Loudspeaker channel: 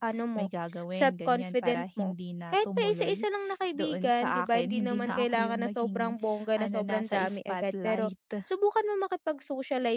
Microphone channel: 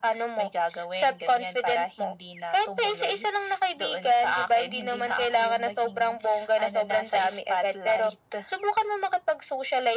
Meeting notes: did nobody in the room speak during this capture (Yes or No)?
Yes